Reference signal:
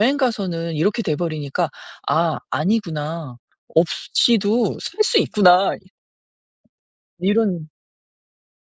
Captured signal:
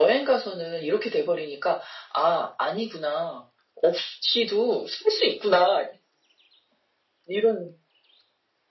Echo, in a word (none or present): present